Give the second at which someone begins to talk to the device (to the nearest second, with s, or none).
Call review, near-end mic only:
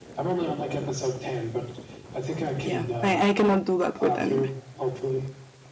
3 s